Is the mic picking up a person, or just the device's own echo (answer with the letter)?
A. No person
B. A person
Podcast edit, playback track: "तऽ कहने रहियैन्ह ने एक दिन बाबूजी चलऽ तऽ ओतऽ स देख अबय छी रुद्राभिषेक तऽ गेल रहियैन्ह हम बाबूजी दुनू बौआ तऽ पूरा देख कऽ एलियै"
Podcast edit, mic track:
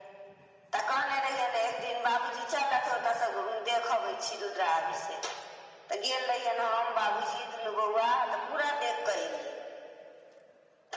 A